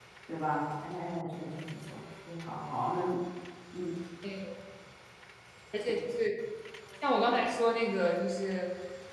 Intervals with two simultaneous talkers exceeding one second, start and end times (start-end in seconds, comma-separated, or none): none